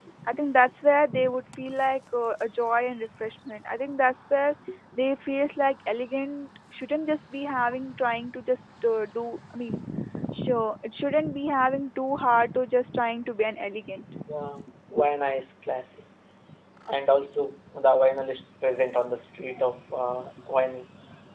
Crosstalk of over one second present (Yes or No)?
No